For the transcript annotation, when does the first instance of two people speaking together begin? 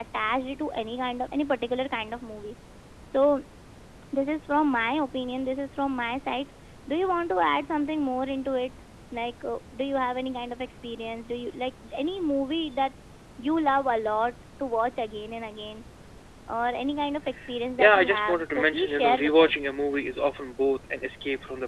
17.8 s

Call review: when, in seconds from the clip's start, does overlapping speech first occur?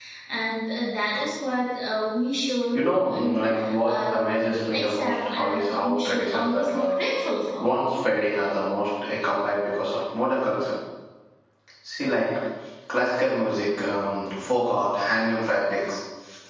2.7 s

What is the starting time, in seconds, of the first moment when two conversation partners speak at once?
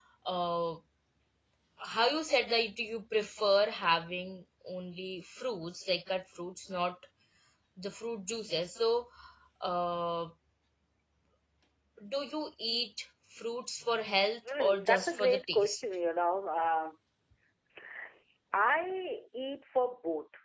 14.4 s

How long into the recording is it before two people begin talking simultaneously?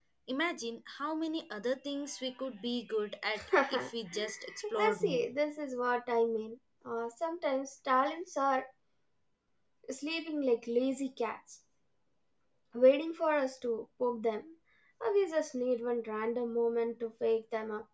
3.5 s

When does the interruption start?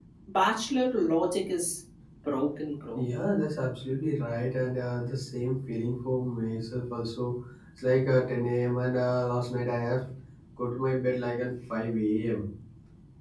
none

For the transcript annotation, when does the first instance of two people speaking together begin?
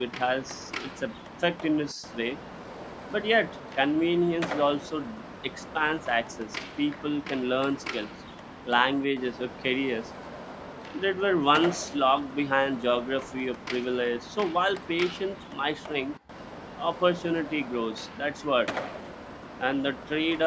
none

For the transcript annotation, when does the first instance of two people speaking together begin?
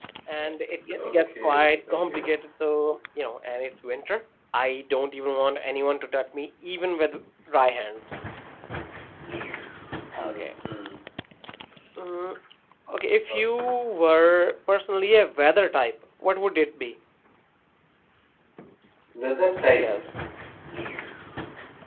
0.9 s

